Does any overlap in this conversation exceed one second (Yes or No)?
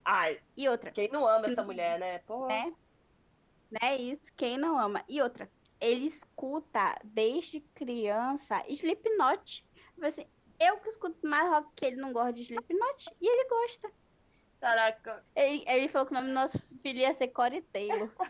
No